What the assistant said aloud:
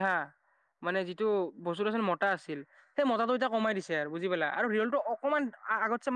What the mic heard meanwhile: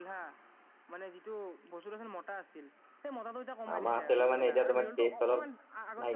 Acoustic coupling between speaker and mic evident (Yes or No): Yes